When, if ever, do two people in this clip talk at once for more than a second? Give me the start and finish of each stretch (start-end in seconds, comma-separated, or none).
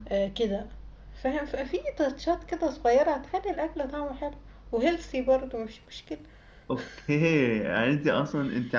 none